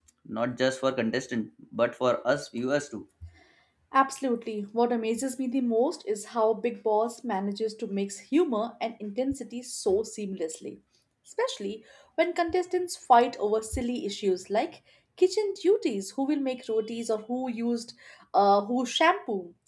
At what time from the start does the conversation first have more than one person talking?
none

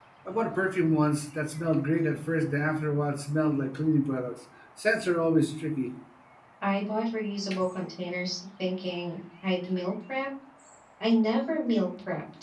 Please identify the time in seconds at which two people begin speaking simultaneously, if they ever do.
none

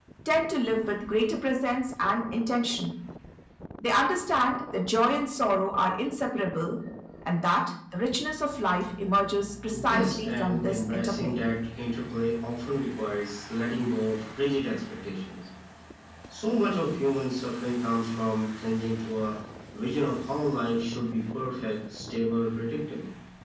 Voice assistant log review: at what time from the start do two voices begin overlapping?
10 s

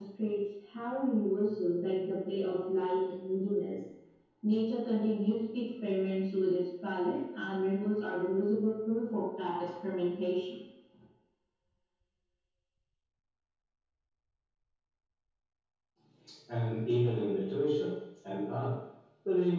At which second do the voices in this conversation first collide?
none

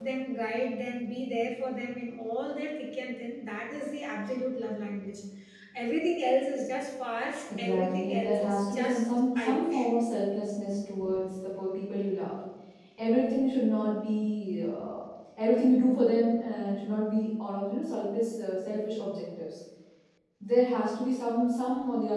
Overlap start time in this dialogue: 7 s

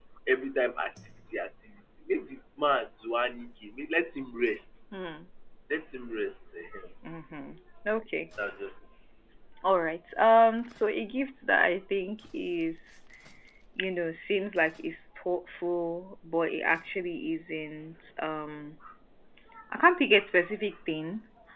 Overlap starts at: none

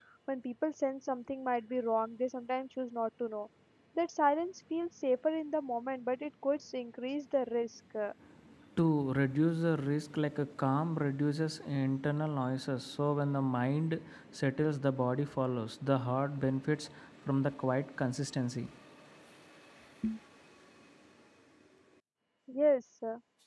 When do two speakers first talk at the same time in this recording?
none

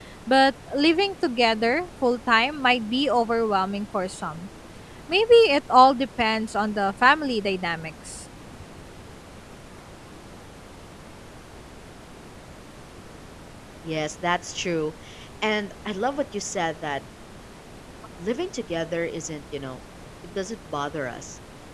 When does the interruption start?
none

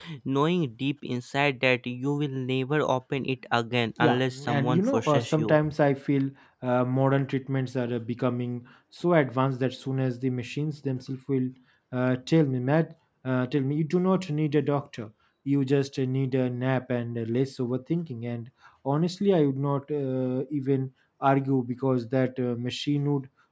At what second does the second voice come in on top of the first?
4 s

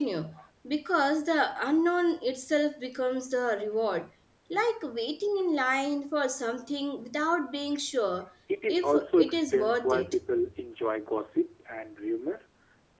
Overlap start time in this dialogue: 9 s

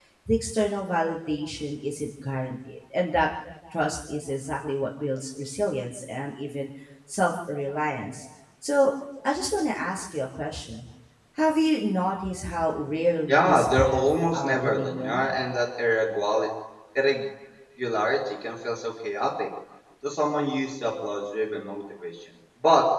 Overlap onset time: 13 s

